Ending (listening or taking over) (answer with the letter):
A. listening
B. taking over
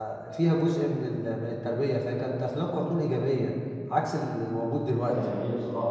B